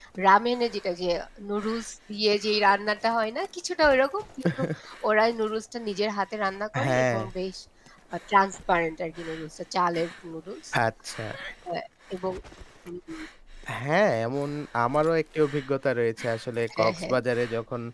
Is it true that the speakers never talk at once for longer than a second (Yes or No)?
Yes